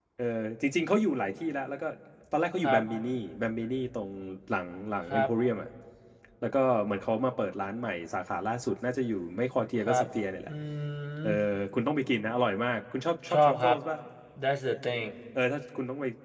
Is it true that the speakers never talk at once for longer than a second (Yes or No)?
Yes